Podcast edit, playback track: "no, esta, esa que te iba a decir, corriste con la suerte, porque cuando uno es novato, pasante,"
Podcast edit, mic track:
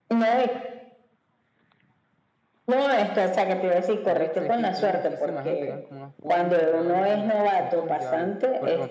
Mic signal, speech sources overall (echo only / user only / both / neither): both